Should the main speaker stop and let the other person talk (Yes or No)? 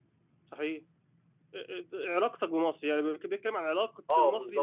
Yes